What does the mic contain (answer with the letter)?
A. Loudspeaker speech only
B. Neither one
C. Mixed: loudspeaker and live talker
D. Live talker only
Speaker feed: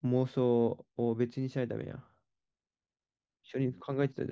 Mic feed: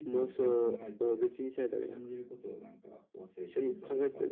C